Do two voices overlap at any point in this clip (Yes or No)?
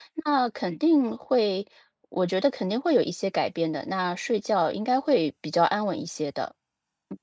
No